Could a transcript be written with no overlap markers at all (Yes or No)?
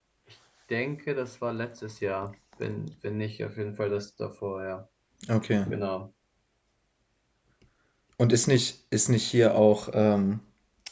Yes